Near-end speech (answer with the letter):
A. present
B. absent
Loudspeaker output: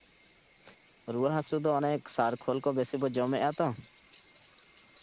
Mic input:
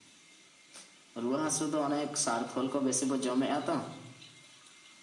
B